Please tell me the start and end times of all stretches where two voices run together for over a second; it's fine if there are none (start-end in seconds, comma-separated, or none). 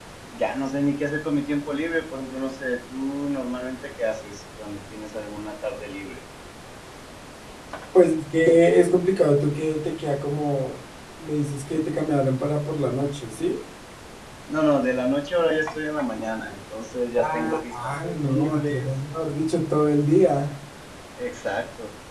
17.2-18.9